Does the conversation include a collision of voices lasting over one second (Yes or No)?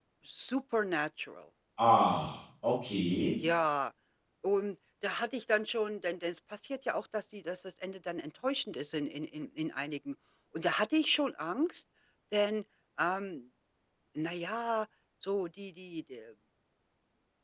No